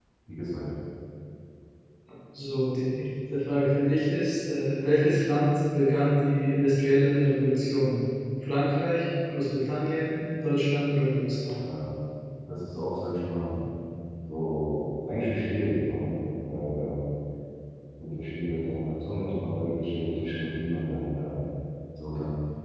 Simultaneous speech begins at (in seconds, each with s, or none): none